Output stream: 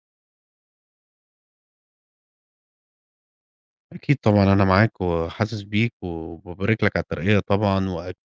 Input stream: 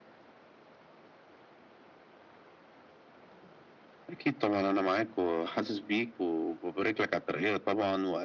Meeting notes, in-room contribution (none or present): none